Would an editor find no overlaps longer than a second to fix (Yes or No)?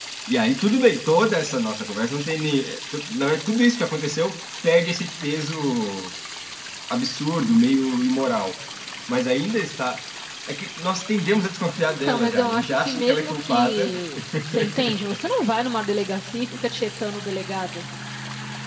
No